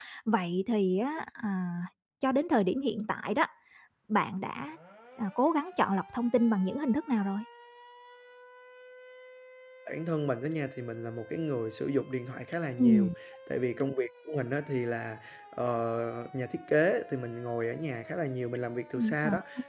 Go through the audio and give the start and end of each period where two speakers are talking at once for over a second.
none

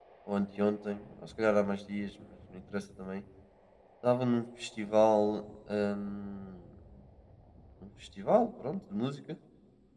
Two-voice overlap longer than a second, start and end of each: none

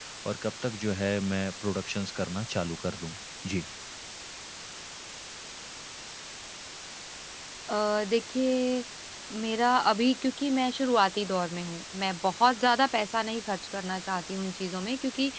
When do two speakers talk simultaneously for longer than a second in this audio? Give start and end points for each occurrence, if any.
none

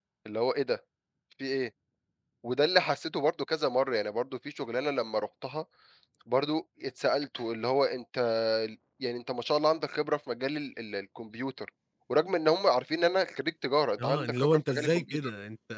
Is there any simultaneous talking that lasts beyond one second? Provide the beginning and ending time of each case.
14.0-15.3

